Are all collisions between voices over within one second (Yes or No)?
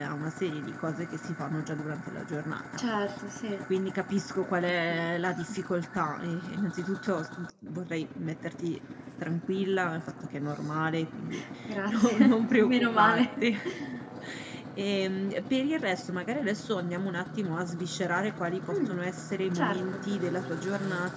No